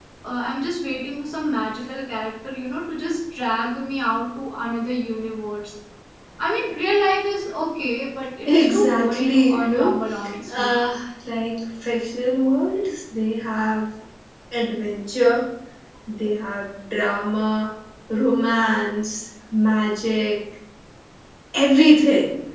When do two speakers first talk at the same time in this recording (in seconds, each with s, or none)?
8.4 s